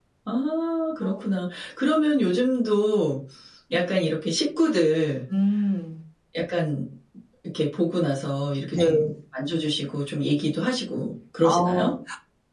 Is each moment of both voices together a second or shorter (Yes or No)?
Yes